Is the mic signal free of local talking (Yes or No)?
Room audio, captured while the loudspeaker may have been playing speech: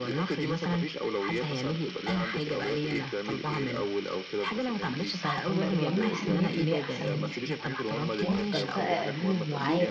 No